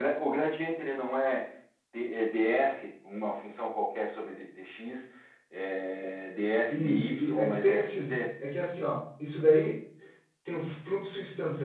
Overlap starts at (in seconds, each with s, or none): 6.7 s